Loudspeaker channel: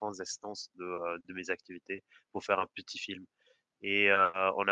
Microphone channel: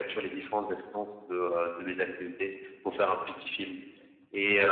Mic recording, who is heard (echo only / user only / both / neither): echo only